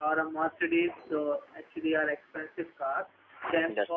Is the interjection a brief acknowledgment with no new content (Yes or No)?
Yes